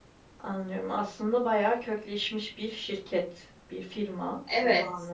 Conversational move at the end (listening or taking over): taking over